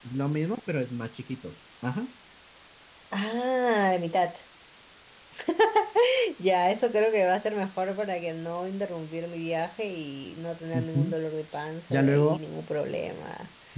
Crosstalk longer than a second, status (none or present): none